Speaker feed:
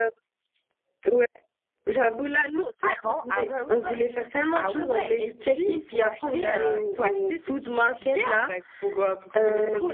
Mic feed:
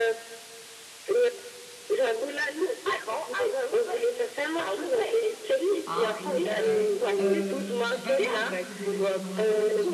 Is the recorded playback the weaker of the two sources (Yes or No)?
No